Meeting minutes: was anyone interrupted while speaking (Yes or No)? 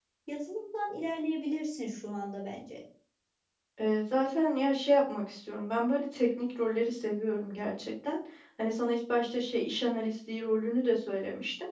No